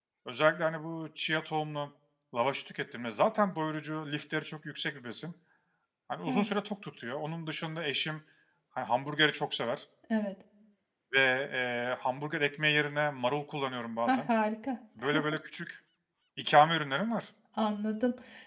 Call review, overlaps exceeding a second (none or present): none